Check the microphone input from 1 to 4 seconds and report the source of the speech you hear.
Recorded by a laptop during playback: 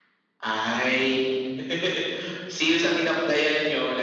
echo only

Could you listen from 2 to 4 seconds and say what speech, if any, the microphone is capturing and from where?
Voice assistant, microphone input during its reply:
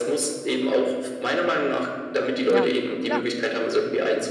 both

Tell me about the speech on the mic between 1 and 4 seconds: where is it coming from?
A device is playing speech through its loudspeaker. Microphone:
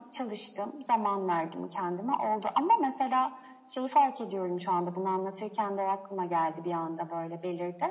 echo only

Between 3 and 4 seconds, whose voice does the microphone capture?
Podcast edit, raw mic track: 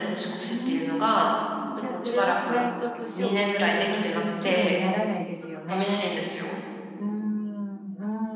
both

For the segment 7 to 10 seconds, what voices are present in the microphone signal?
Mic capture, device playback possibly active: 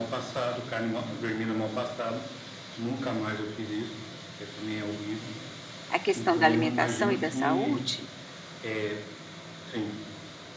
both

